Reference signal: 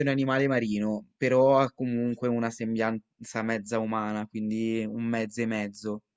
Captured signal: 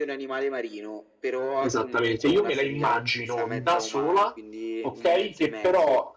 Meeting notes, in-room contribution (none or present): present